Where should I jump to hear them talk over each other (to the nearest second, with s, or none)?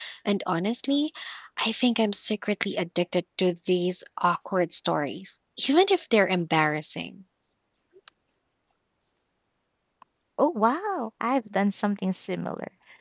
none